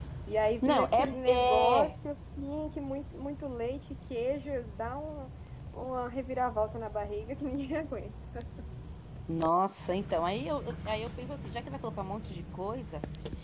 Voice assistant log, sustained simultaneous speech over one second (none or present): present